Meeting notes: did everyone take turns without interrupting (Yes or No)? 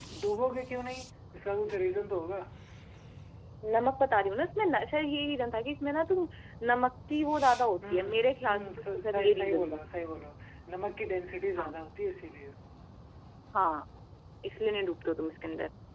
No